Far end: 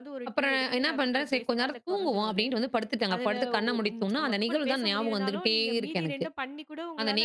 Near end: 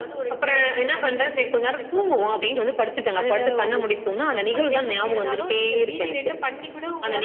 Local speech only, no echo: none

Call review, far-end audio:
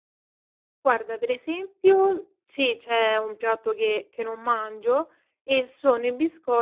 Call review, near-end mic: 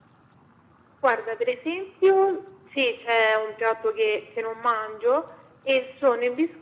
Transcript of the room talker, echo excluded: none

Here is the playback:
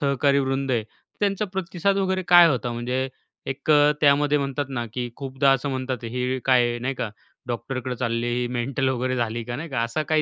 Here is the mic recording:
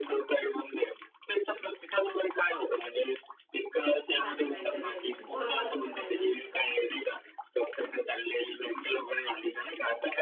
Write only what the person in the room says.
माझी म मेंटल हेल्थ बरोबर करायला

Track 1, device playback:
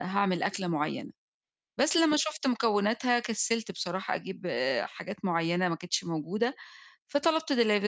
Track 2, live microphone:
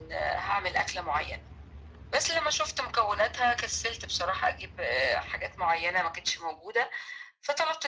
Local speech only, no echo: none

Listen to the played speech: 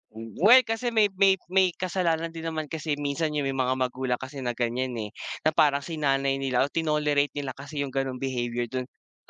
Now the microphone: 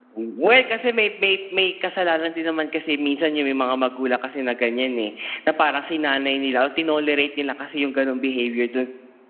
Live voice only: none

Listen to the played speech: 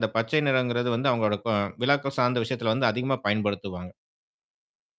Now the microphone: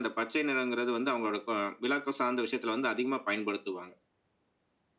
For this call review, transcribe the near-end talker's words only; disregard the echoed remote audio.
none

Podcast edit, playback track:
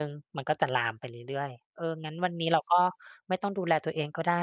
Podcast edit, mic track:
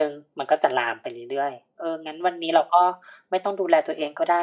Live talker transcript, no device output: none

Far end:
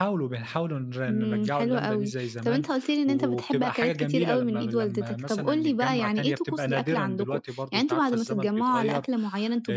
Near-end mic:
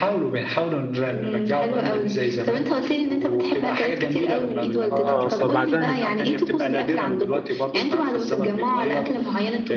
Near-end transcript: آه، فبعدها نج

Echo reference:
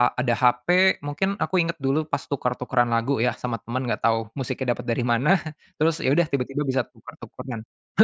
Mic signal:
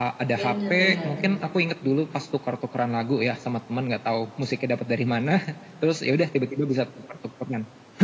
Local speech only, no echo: bener, bener, bener.

